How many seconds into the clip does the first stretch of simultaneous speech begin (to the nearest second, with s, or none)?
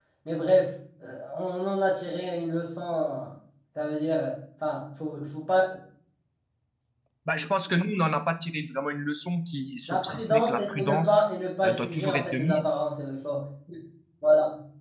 10 s